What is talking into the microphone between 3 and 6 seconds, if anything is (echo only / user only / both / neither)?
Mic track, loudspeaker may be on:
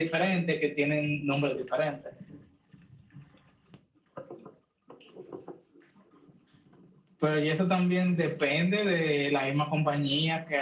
neither